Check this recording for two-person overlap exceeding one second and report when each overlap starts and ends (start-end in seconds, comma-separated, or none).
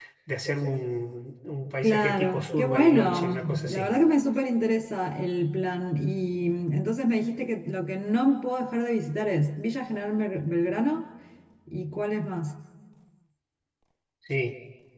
1.8-3.9